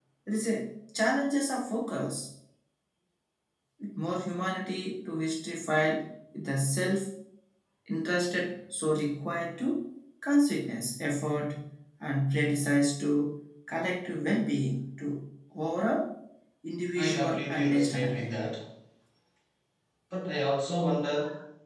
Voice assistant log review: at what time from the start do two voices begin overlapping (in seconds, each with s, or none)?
16.9 s